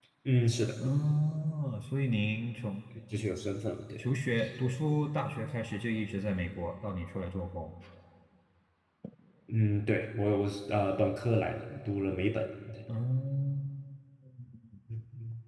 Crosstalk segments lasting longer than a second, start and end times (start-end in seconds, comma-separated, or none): none